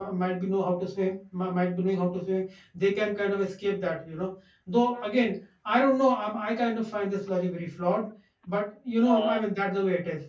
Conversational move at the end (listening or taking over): listening